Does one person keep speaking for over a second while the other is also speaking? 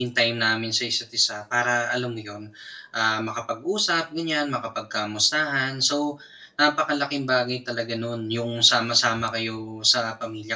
No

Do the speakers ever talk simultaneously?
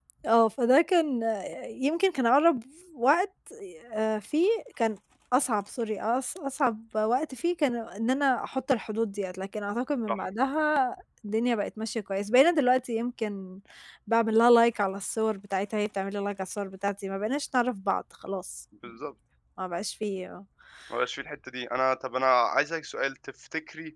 No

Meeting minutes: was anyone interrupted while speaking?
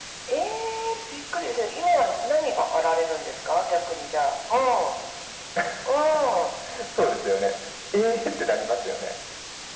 No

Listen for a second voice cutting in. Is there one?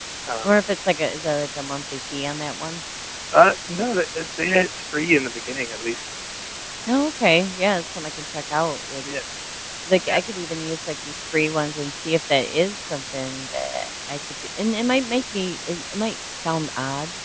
No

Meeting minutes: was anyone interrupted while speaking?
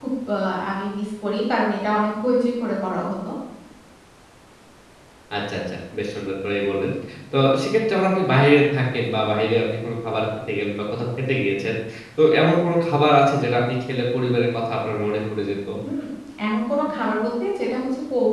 No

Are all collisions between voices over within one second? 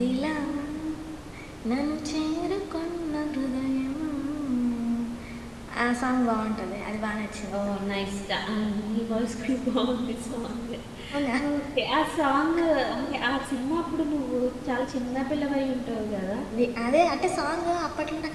Yes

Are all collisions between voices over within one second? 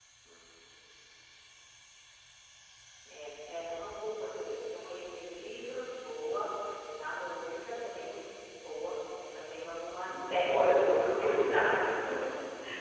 No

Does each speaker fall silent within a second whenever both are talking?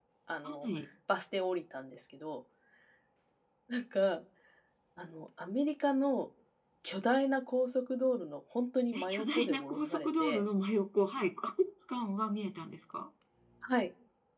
No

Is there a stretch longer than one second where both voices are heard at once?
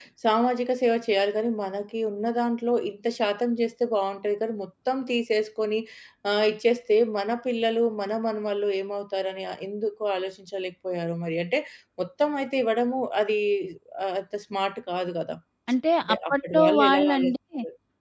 Yes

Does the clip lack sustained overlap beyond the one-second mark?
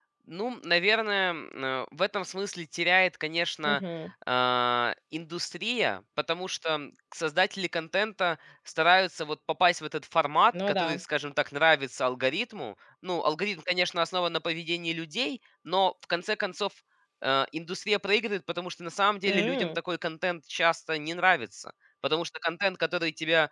Yes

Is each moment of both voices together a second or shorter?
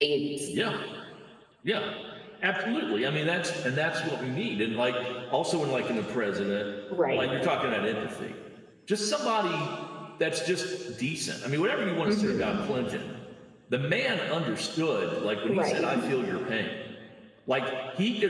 Yes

